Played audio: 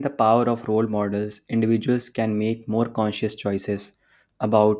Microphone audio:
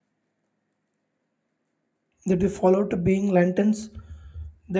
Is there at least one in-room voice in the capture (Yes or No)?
Yes